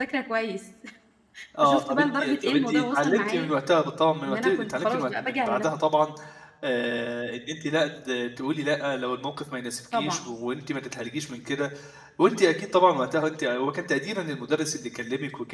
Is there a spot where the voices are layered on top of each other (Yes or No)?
Yes